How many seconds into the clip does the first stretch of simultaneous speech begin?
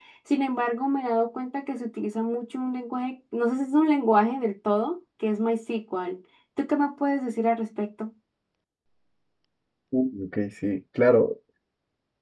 none

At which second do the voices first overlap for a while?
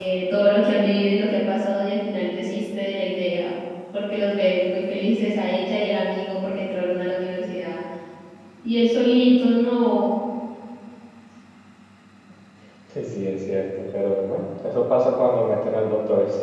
none

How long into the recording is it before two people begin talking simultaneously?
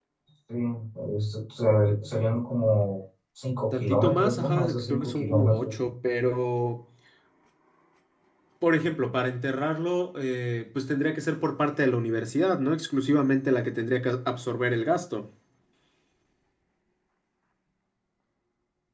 3.7 s

